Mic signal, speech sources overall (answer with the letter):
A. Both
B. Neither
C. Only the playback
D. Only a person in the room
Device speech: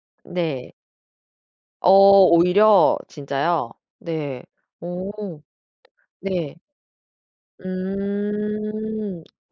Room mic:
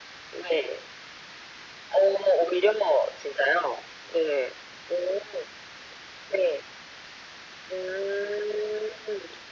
C